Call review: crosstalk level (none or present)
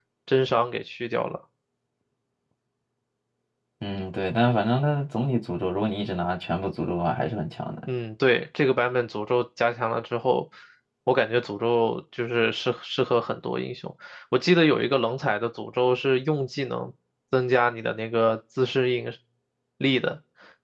none